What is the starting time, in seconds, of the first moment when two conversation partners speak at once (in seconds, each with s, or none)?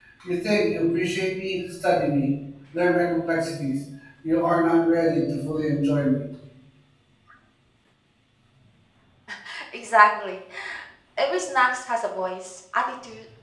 none